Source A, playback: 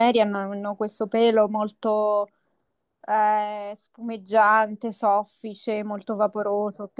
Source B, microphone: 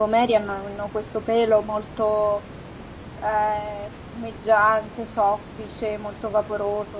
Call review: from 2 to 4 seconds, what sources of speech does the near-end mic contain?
echo only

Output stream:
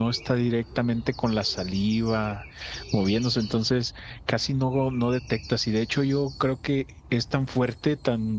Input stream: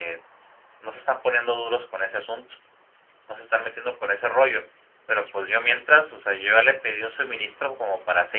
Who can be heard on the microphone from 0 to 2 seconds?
user only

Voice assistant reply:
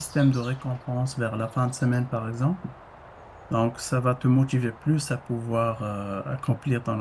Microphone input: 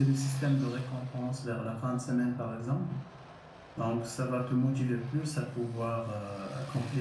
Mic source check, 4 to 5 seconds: echo only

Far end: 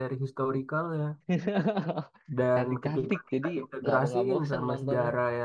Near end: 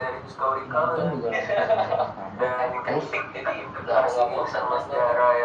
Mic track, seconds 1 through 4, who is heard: both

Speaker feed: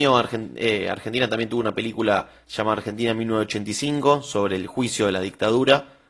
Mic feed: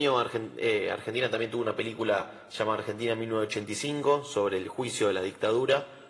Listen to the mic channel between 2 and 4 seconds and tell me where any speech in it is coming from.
echo only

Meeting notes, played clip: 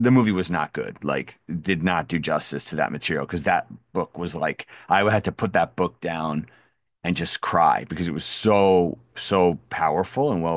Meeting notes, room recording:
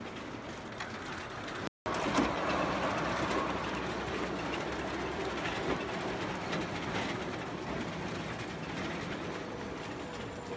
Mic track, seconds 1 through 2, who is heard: neither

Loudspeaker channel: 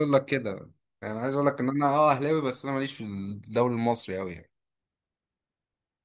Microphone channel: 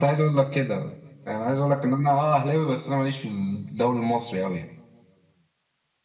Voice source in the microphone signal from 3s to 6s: echo only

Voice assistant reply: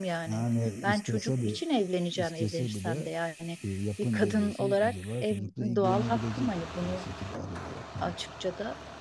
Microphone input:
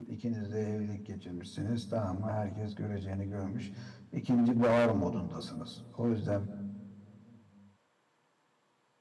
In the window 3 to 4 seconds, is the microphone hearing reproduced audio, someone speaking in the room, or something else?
user only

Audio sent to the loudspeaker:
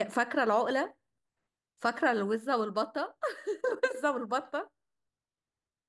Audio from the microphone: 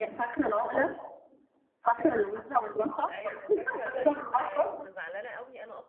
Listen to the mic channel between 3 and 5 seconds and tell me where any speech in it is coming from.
both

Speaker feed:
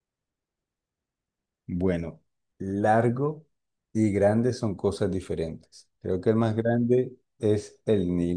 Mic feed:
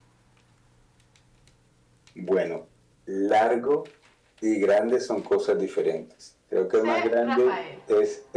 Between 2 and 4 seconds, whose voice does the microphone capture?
echo only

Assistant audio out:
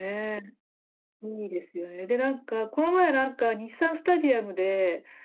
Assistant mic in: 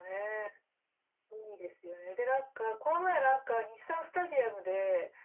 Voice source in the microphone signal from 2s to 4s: echo only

